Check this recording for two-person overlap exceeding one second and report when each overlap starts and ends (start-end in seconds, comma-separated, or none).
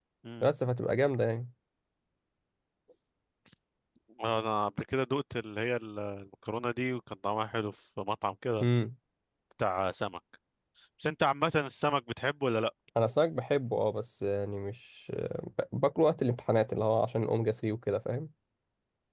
none